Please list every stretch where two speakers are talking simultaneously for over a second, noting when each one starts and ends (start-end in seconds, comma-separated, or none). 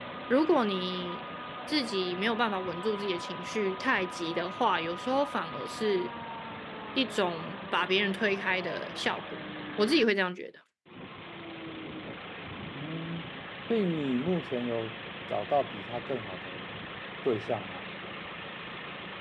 none